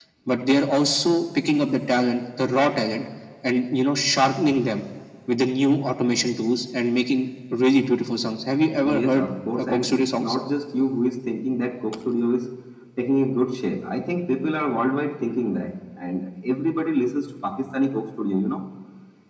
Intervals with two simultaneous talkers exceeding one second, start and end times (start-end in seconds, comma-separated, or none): 8.8-10.3